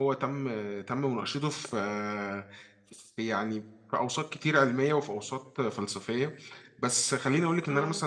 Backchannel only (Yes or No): Yes